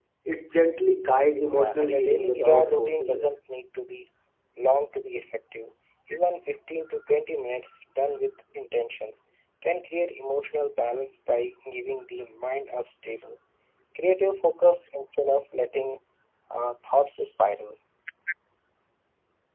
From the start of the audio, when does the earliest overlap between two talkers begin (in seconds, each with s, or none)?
1.4 s